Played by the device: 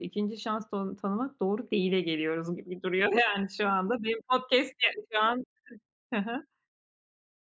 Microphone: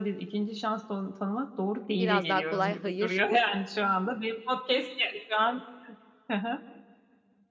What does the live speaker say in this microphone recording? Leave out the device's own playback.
biraz daha kolay hayır

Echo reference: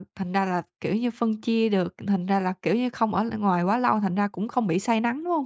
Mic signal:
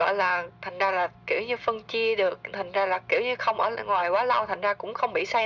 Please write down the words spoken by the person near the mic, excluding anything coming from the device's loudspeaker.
none

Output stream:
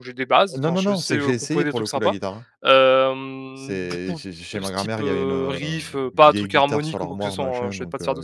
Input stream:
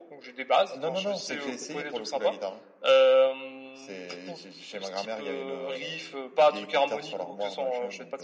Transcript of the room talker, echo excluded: none

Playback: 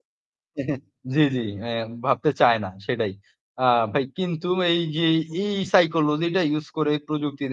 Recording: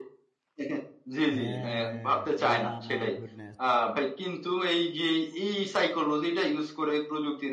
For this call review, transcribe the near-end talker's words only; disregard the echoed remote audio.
হ্যাঁ! yeah my goodness!

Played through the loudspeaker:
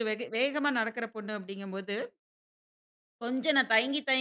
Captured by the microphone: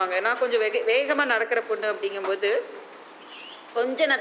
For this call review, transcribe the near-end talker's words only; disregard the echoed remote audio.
none

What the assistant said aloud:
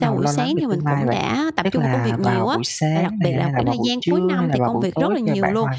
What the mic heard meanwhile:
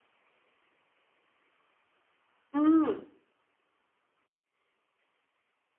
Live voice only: Ừm.

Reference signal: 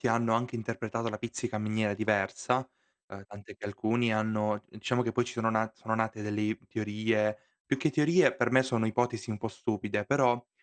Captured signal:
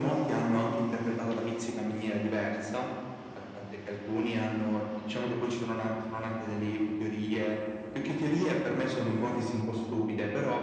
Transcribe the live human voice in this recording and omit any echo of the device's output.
none

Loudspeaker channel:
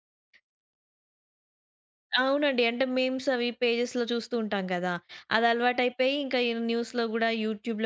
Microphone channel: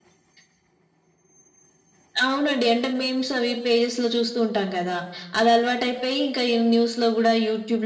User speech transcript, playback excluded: none

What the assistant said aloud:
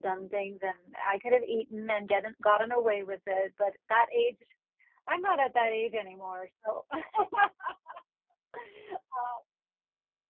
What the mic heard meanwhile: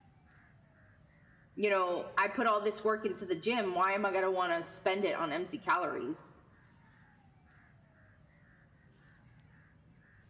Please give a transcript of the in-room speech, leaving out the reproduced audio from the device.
you know, "I put all this work into the gym, why am I gonna wanna spend it on empty calories?"

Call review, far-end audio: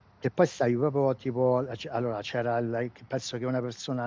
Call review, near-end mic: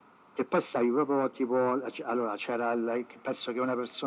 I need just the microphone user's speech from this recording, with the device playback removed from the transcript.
none

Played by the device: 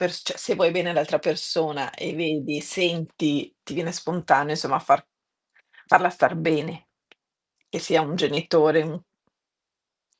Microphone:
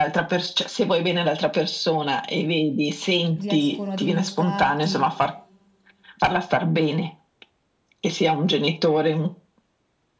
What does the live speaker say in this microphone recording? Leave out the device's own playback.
riescono a dimostrarti

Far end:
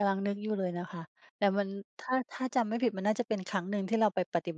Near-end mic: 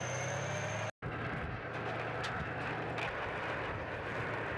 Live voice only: none

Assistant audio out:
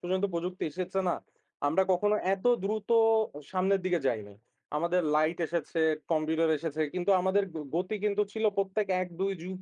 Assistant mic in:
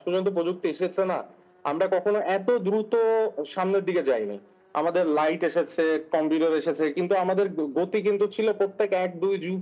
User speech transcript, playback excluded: none

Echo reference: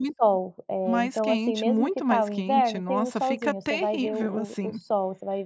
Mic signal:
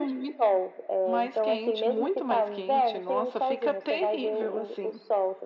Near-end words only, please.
none

